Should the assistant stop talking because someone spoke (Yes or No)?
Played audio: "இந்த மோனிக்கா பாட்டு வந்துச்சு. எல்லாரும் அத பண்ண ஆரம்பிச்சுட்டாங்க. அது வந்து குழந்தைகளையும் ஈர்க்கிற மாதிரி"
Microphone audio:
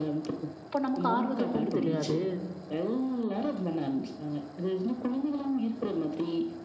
Yes